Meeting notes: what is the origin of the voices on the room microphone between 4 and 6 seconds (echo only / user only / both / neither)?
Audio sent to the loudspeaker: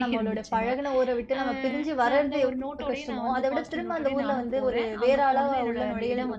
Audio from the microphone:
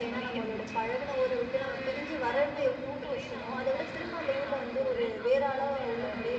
echo only